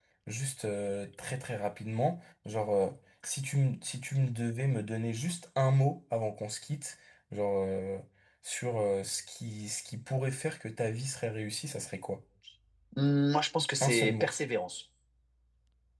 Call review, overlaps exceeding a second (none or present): none